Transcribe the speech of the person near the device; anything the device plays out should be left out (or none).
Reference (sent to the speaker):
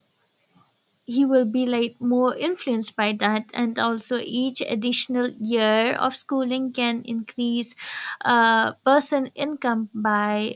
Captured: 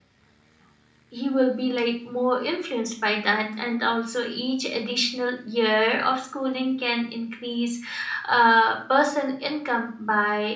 none